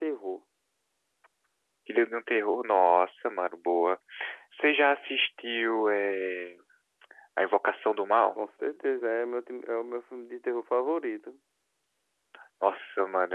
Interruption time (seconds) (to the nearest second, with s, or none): none